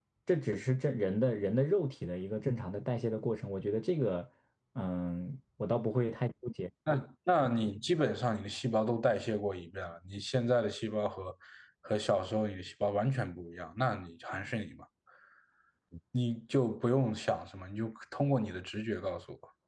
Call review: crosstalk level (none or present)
none